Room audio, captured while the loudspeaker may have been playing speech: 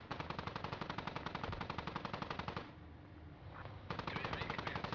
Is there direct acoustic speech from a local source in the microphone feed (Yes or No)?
No